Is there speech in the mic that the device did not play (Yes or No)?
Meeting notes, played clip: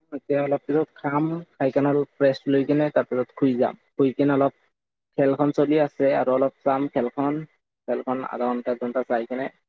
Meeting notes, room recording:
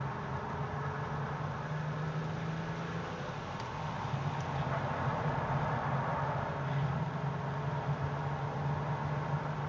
No